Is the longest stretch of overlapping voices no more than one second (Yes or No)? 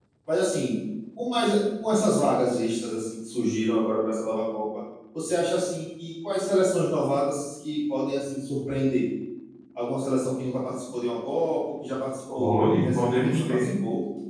No